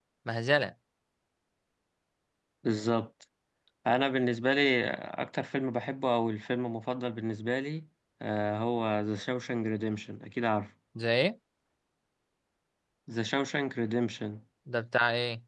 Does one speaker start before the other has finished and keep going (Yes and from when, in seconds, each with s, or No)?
No